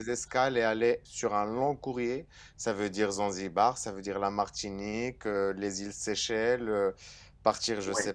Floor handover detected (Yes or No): Yes